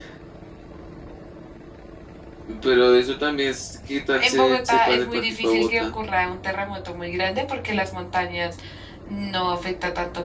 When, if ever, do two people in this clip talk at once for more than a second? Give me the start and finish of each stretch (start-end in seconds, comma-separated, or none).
4.1-6.0